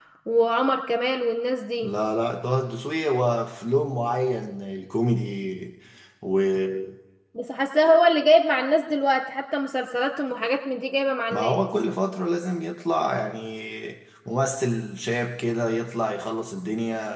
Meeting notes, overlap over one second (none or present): none